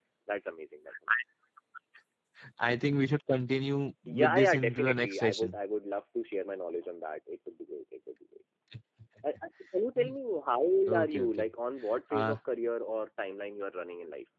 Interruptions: present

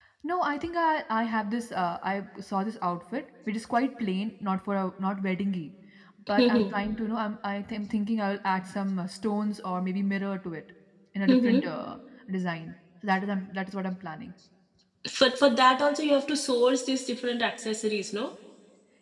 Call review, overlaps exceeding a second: none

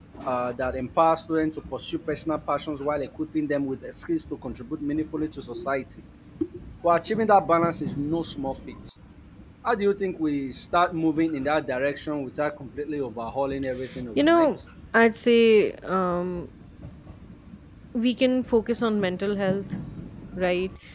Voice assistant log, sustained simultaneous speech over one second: none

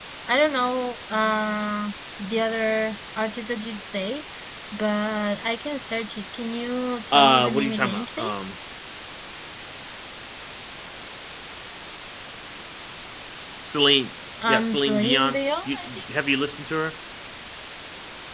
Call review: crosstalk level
present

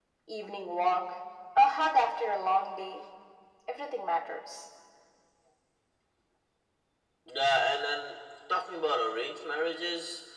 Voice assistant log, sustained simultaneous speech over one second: none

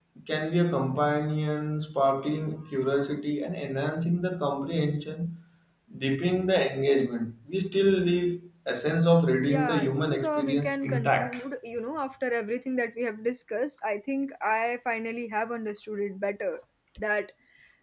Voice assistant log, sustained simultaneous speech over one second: present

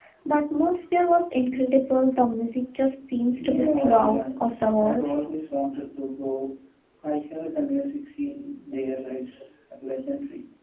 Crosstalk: present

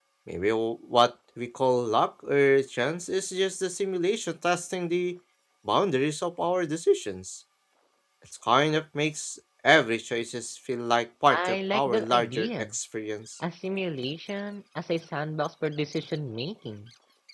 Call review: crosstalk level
present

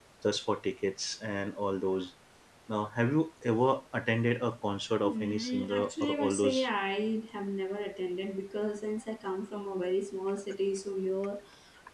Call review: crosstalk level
present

